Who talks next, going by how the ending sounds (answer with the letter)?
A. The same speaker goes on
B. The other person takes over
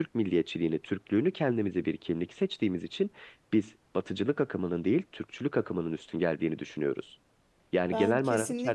B